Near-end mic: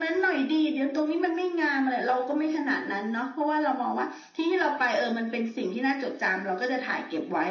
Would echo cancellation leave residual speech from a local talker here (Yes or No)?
No